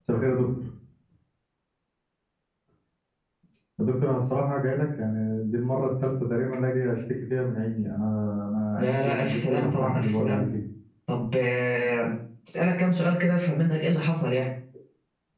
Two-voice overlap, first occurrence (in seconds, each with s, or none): 8.8 s